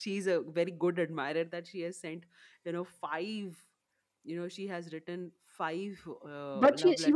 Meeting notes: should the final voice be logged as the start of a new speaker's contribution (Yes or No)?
Yes